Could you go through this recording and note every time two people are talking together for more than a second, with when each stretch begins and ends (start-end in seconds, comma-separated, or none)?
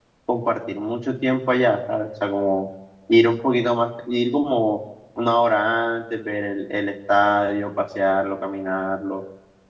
none